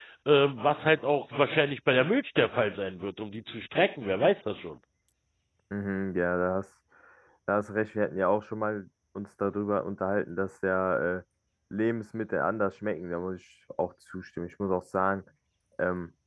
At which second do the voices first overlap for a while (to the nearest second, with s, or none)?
none